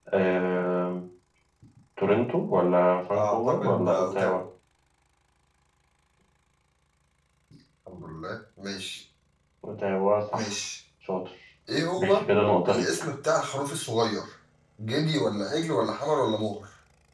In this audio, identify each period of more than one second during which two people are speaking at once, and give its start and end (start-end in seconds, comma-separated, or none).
3.1-4.4